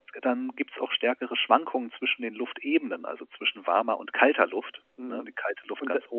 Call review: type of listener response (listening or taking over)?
taking over